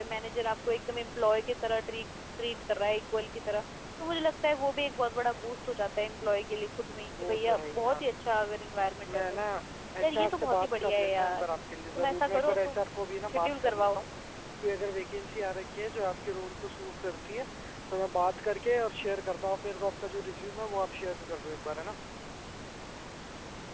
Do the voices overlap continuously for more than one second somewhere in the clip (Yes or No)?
Yes